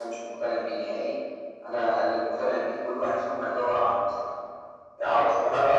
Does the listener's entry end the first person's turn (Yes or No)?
Yes